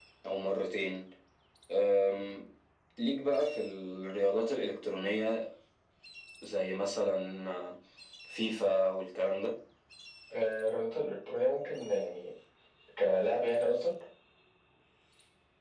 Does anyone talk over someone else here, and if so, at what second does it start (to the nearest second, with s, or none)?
none